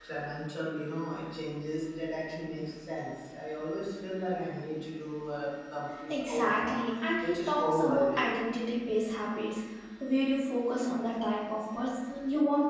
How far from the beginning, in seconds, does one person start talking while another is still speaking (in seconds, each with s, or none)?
6.1 s